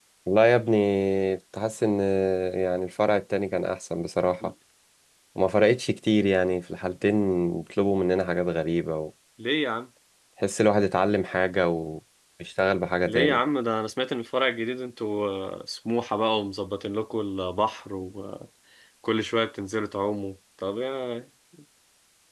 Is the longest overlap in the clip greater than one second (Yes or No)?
No